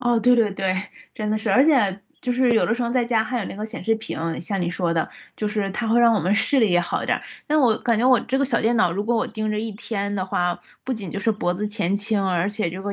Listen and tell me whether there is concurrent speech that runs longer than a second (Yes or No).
No